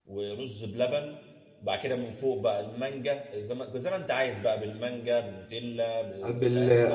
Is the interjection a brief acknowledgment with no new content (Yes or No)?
No